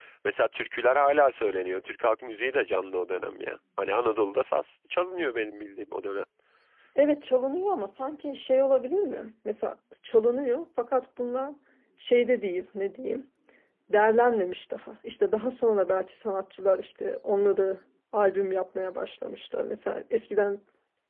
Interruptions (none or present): none